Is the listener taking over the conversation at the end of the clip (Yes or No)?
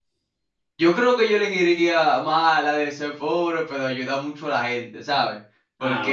No